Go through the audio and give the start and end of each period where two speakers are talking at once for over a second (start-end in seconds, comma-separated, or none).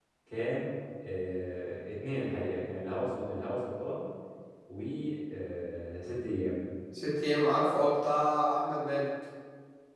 none